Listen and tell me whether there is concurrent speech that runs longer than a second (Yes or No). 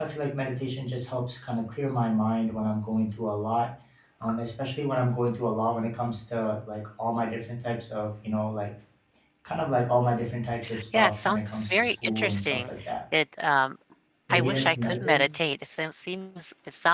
Yes